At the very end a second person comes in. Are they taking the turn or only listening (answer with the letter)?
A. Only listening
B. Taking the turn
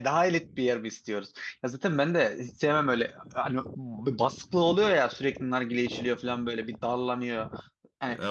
A